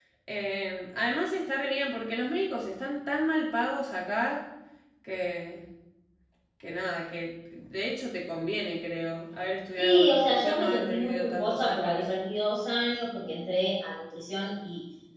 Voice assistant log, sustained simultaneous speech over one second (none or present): present